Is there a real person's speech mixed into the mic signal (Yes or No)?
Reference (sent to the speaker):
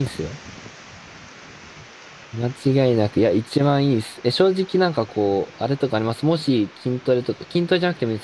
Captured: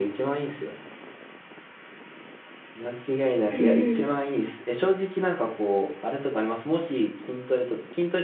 Yes